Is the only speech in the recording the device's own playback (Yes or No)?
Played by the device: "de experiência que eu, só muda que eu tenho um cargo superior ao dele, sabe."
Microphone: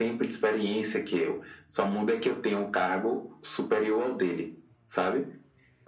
Yes